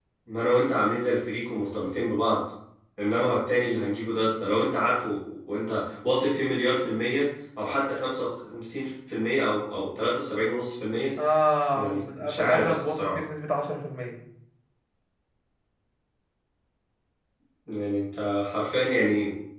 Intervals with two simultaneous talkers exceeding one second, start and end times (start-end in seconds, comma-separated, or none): 11.8-13.2